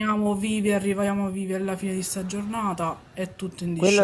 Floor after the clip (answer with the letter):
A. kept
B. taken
B